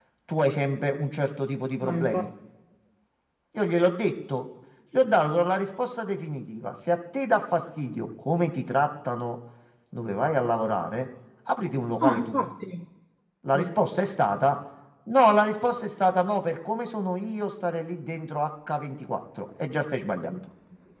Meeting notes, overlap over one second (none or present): none